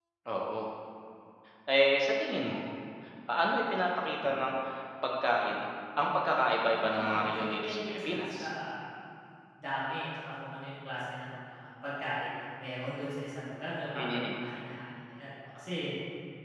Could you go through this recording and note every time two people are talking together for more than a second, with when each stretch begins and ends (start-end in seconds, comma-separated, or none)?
6.7-8.5